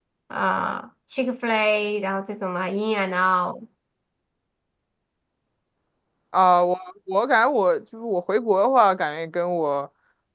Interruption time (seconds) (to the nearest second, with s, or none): none